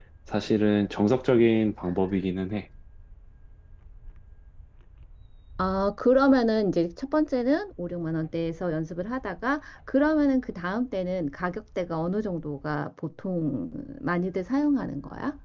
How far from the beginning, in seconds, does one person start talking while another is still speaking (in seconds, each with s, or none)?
none